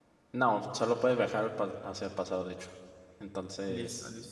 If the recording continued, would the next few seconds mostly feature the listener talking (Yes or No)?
Yes